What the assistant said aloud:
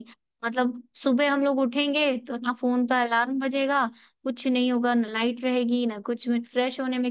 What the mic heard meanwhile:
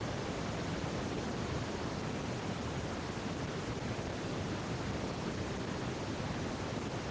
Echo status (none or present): none